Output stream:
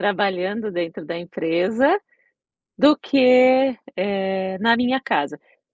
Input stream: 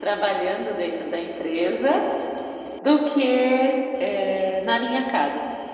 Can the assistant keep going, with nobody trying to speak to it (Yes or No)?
Yes